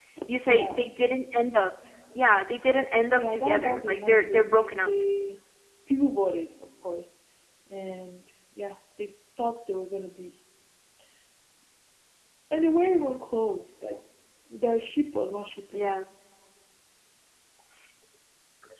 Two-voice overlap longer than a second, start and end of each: 3.1-4.9

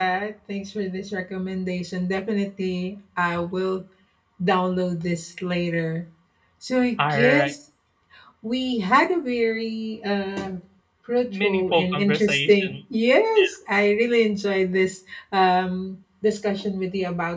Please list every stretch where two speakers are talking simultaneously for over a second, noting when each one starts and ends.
11.3-12.8

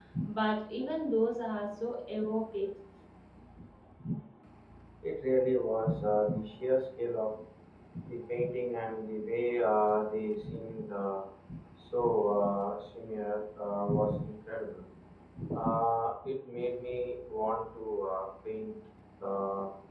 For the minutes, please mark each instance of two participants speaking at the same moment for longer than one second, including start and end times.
none

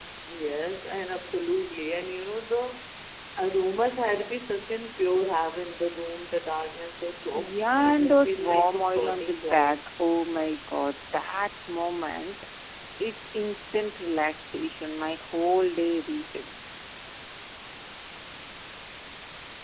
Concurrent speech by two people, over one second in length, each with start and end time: 7.3-9.8

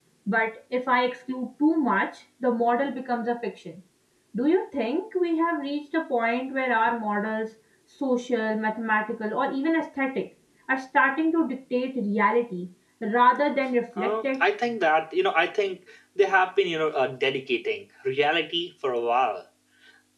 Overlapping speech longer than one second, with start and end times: none

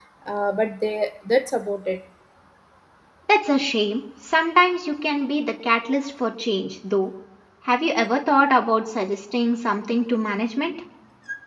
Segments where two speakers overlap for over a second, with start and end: none

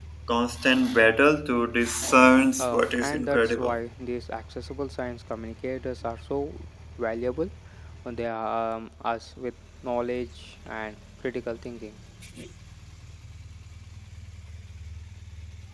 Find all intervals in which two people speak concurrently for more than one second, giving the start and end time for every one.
2.6-3.8

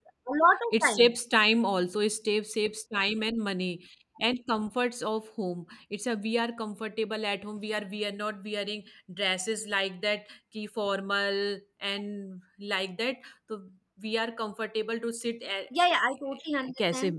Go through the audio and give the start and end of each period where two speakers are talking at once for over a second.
none

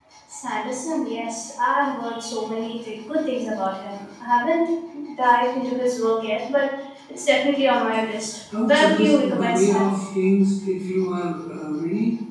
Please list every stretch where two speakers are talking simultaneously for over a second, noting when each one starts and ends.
8.6-9.8

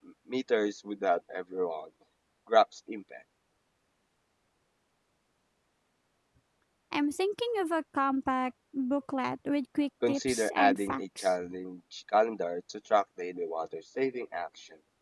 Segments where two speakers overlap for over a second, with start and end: 10.1-11.3

